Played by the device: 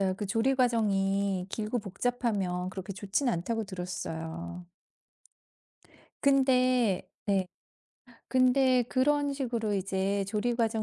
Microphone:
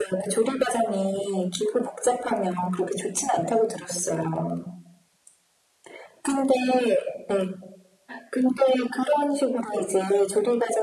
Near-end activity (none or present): none